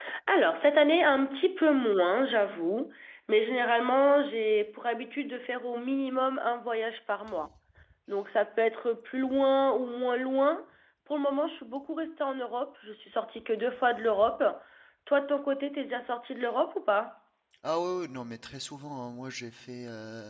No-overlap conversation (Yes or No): Yes